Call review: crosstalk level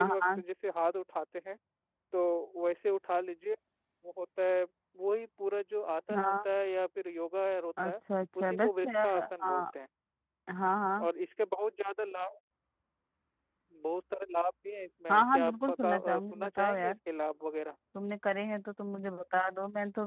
present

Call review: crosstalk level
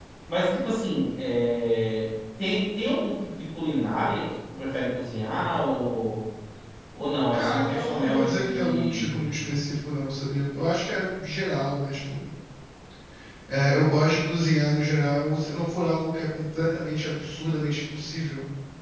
present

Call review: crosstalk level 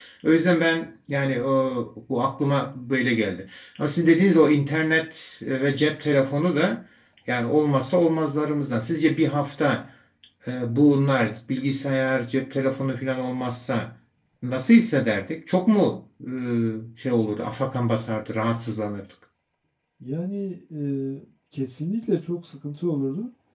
none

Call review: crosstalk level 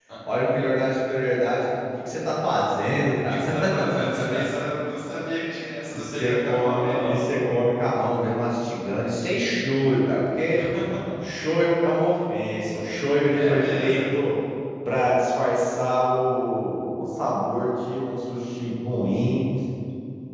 present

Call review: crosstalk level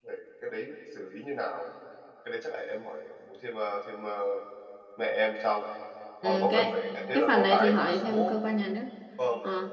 present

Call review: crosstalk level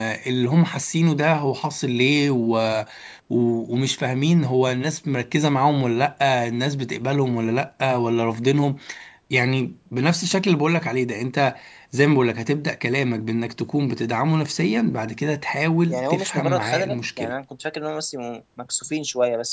present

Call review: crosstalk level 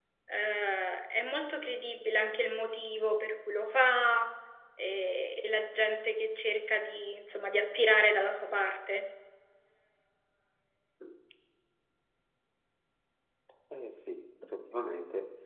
none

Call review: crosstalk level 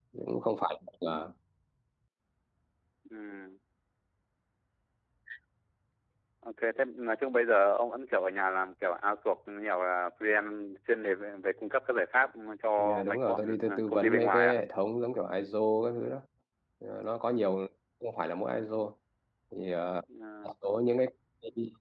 present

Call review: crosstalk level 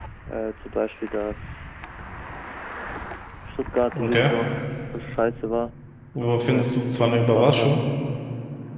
present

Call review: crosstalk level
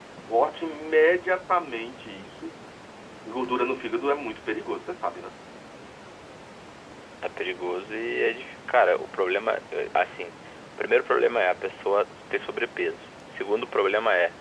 none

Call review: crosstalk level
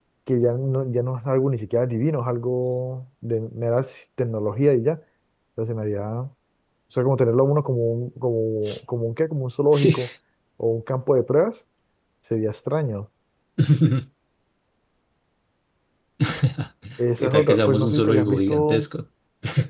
present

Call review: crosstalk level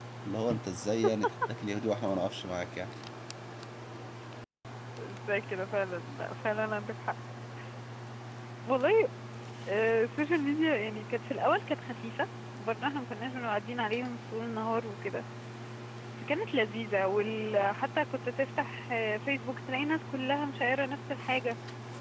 none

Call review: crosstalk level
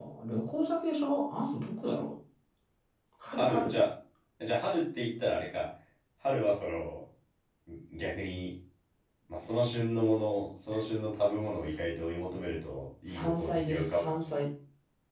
present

